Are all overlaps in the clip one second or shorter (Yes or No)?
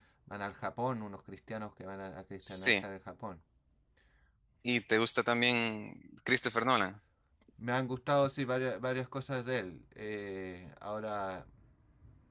Yes